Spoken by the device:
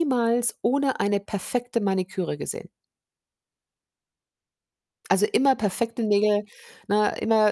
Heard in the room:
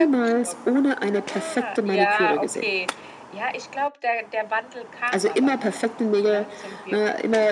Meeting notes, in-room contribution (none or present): present